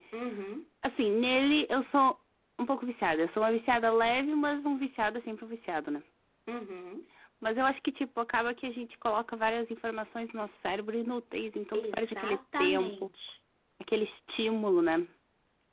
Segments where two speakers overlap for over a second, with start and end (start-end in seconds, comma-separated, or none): 11.8-13.1